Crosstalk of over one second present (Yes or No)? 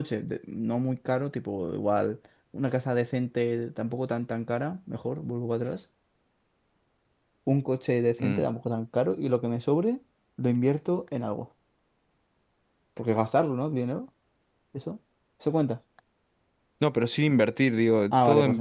No